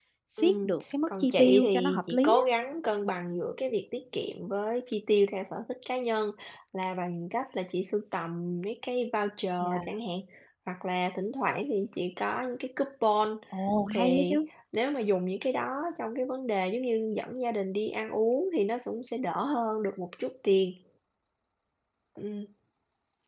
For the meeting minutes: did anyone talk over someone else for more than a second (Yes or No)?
Yes